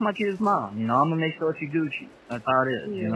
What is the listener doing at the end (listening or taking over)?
taking over